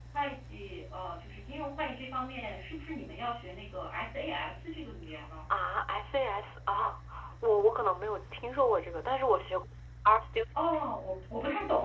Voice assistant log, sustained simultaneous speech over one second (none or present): none